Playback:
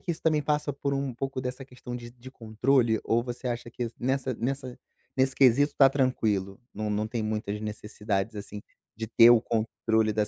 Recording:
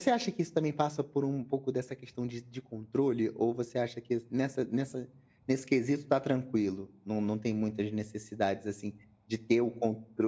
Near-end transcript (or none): none